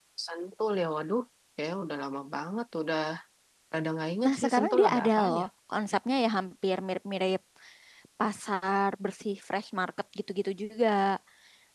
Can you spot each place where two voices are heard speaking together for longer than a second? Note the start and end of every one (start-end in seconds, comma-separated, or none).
4.2-5.4